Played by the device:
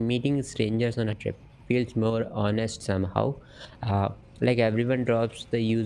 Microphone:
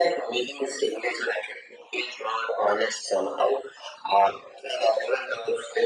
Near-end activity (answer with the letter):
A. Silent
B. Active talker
A